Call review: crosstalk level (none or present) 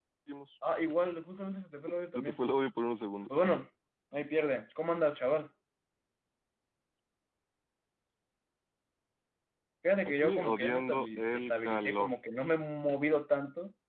present